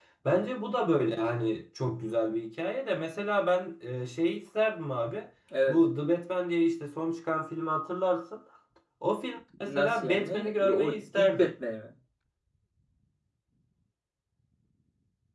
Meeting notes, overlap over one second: present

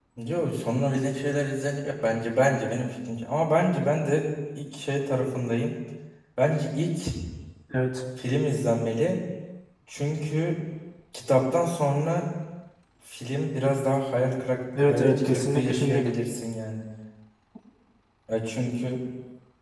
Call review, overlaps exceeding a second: present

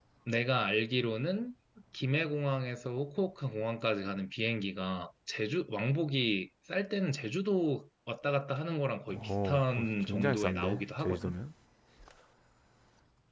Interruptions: present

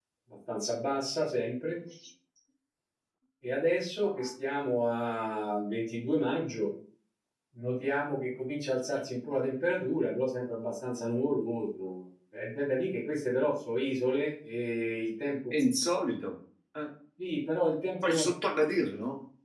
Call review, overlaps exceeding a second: none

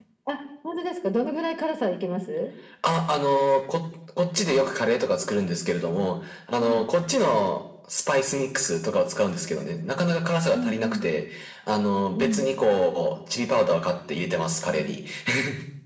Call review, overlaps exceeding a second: none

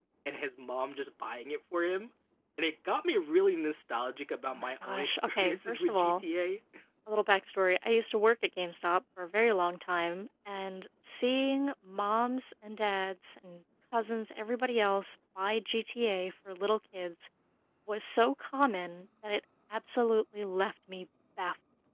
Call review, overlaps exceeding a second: present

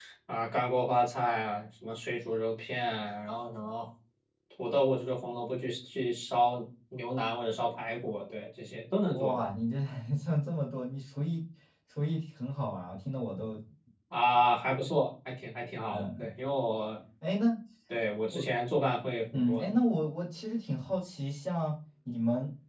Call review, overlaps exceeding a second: none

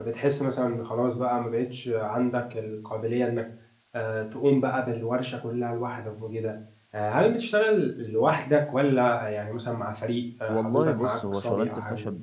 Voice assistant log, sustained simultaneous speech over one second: present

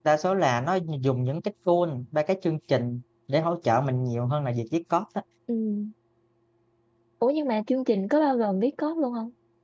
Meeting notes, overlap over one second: none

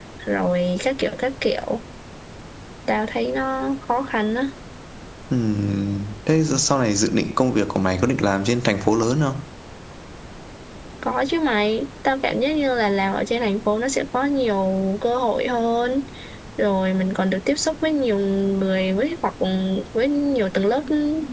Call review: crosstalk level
none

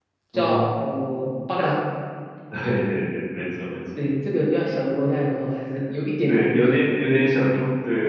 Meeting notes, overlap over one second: none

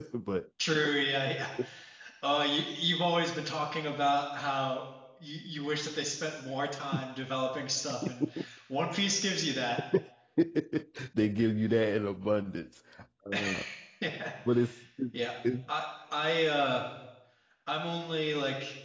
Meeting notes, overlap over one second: none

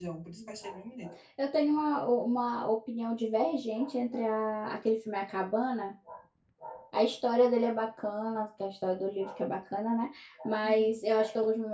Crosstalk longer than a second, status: none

